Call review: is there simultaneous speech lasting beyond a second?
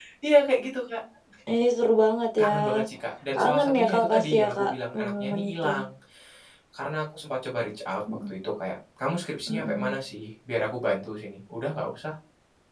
Yes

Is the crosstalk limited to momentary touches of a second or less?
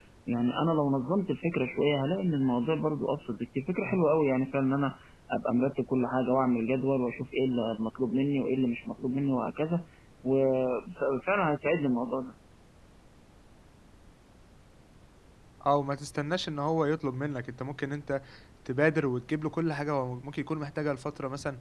Yes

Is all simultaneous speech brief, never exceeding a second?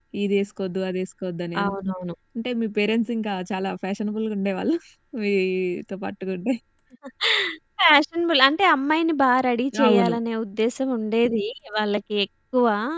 Yes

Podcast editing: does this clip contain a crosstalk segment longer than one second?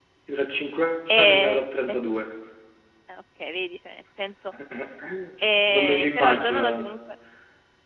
Yes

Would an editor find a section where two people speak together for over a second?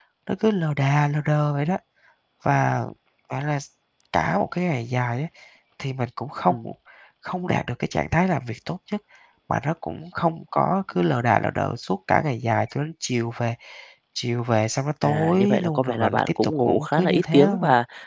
Yes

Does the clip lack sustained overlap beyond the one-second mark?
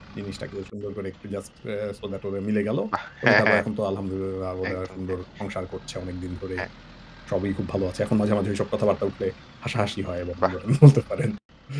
Yes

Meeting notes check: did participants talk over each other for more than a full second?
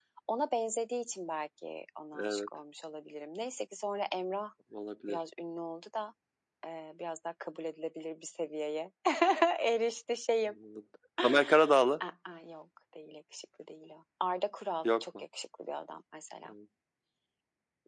No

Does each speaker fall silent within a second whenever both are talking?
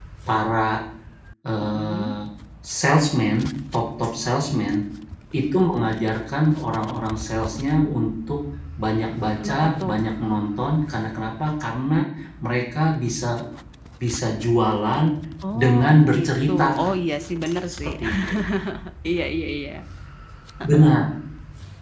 No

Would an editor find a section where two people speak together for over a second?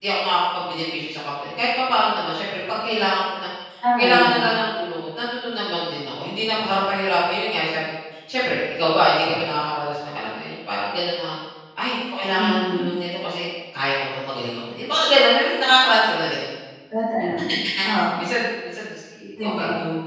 No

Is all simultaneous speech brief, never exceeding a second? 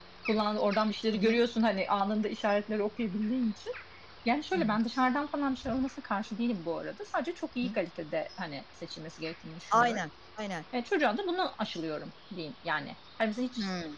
Yes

